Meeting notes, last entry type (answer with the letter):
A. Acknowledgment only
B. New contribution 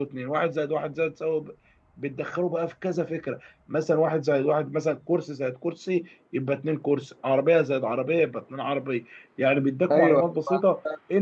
A